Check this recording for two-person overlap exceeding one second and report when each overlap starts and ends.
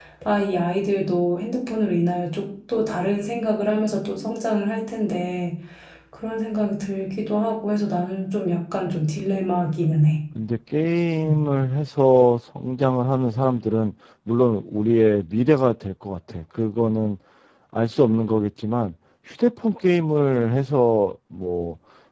none

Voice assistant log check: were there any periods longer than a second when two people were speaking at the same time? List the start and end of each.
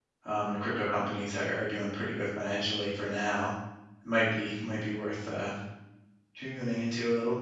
none

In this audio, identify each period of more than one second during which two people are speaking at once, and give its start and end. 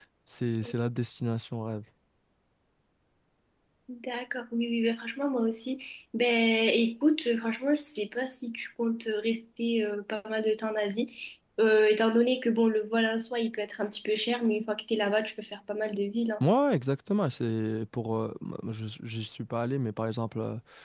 none

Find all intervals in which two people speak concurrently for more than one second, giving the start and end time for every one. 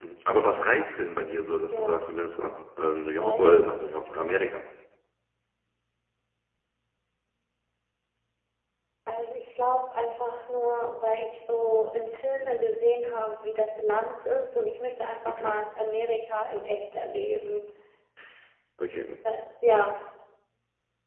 none

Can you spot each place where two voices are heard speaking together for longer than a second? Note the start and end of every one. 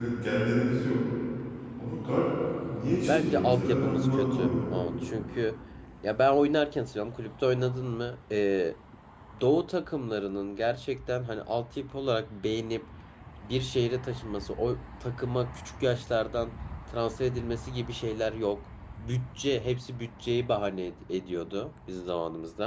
3.1-4.7

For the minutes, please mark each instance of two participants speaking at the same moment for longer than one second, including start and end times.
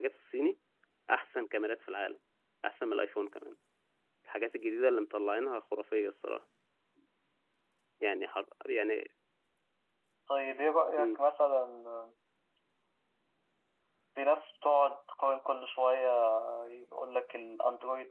none

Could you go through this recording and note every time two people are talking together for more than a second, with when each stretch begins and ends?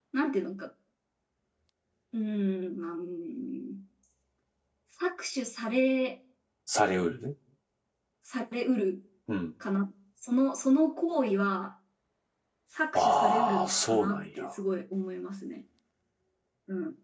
12.9-14.3

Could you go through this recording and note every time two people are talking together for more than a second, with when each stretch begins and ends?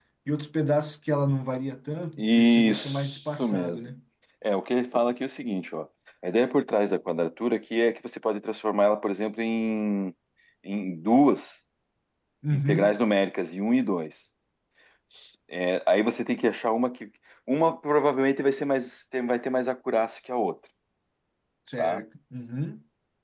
2.2-3.8

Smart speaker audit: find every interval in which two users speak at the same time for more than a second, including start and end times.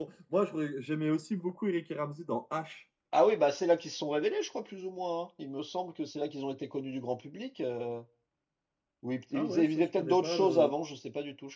9.3-10.7

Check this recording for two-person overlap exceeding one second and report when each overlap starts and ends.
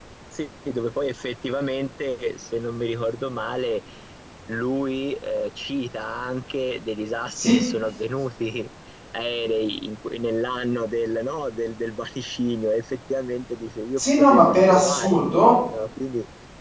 14.0-15.6

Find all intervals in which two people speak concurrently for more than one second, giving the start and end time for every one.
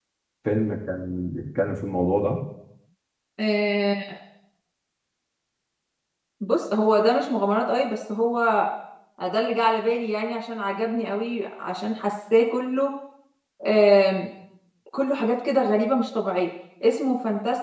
none

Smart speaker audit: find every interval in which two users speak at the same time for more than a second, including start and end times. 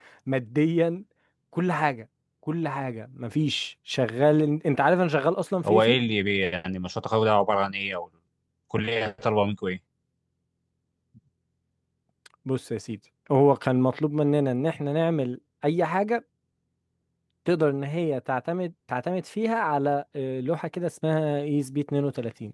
none

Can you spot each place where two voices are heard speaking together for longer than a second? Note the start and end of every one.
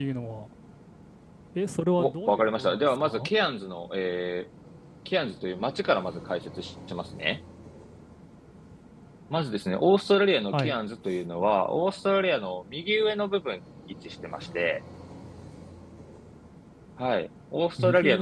2.0-3.3

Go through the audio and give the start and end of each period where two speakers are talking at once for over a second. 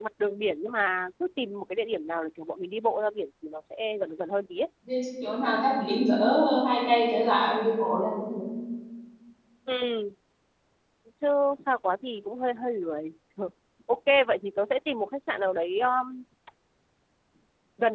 none

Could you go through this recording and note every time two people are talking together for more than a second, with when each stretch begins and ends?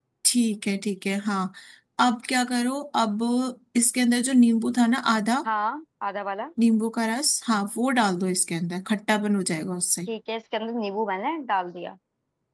none

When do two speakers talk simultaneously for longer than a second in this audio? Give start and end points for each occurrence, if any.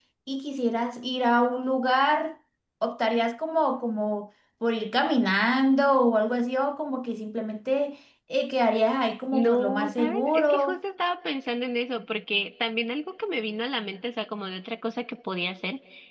9.3-10.8

